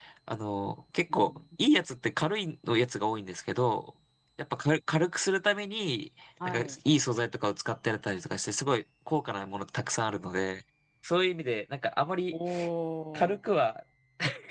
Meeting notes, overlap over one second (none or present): none